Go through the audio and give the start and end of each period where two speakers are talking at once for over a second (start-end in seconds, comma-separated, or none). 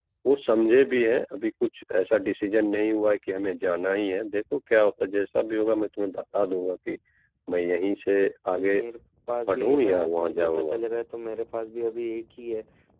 9.5-10.8